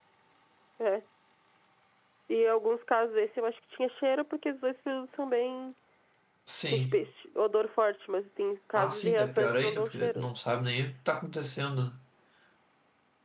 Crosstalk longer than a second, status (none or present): present